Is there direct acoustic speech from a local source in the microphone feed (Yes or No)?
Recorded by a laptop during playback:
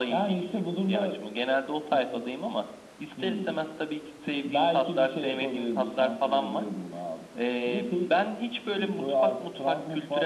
No